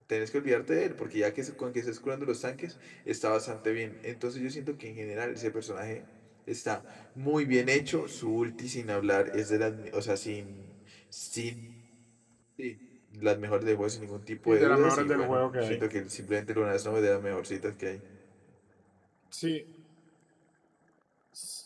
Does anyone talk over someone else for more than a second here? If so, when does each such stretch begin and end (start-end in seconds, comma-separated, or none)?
14.5-15.8